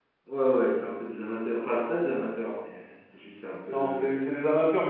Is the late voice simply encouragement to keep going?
No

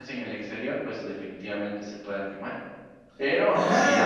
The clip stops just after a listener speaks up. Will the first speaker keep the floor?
No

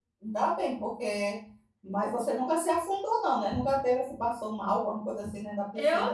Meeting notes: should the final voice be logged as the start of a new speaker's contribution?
Yes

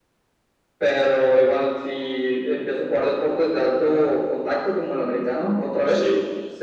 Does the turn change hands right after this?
No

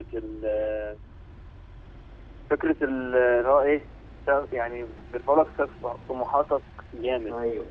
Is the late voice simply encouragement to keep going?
Yes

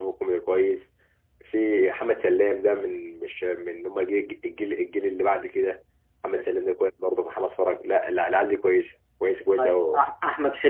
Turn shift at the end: Yes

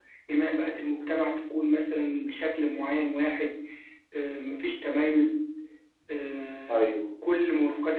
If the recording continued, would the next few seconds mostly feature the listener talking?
No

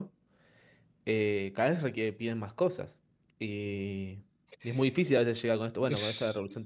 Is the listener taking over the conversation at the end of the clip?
No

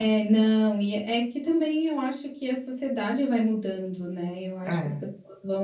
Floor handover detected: No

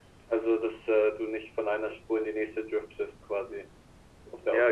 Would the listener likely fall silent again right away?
No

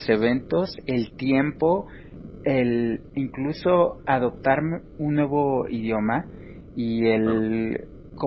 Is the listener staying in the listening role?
Yes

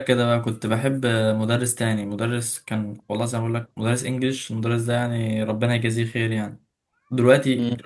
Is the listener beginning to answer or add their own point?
No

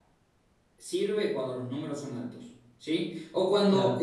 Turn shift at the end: No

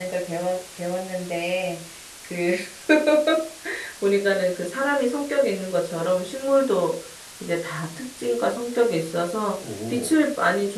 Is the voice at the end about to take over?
No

